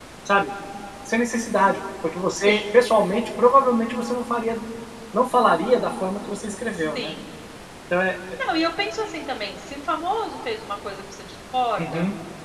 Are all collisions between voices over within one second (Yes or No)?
Yes